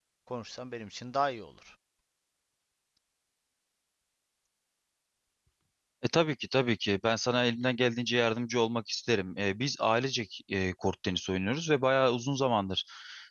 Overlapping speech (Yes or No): No